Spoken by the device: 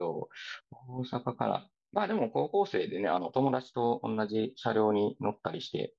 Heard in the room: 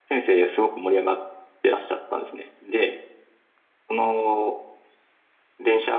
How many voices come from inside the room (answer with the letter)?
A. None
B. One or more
B